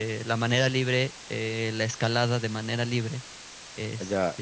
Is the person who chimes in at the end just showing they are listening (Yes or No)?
No